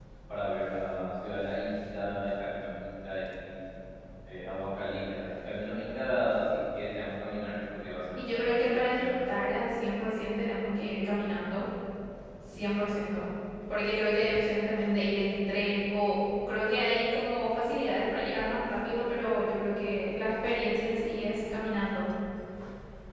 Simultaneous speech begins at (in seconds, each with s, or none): 8.2 s